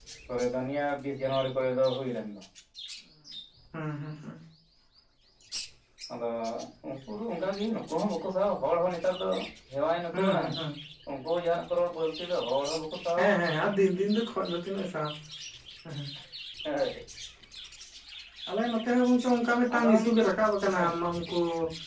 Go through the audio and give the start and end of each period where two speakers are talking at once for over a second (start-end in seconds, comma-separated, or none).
none